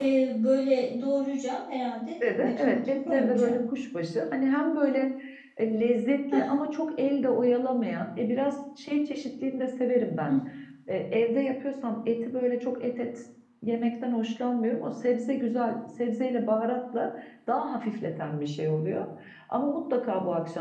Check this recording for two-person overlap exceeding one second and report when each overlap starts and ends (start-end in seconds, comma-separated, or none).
2.2-3.6